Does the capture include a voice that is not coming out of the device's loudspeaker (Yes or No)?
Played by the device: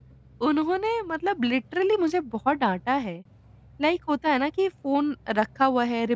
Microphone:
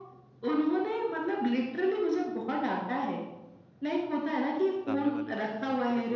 Yes